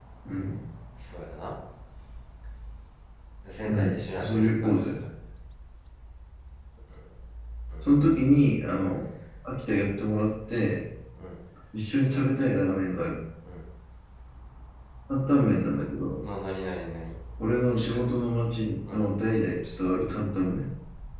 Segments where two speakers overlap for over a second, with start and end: 3.6-5.0

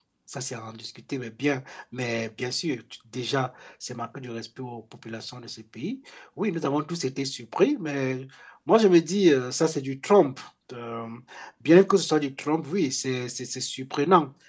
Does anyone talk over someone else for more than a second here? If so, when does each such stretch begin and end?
none

